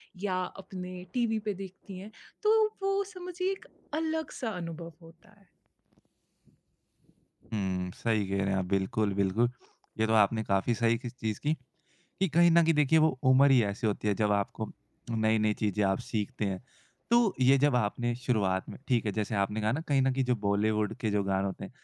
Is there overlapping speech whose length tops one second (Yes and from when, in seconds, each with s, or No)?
No